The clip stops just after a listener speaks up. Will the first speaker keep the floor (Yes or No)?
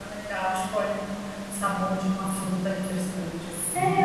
No